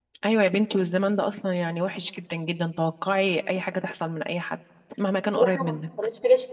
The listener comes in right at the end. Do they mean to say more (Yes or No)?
Yes